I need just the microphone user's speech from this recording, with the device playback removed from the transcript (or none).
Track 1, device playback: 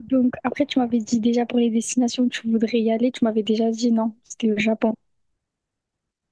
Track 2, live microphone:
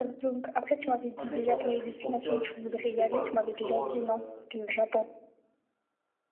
un mec dans un triporteur qui, je sais pas, des trucs drôles. euh,